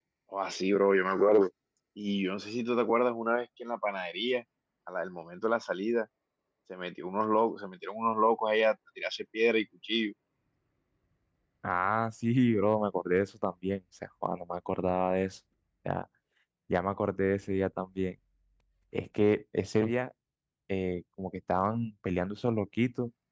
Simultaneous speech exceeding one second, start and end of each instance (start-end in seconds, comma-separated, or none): none